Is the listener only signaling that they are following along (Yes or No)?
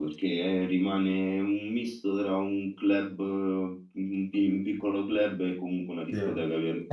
No